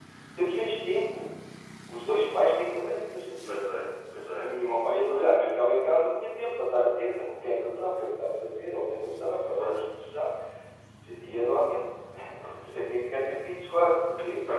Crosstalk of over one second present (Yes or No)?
No